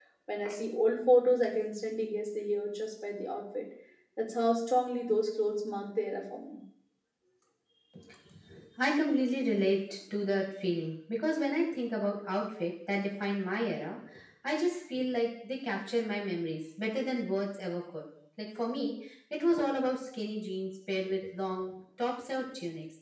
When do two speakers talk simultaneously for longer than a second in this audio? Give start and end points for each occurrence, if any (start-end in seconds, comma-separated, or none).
none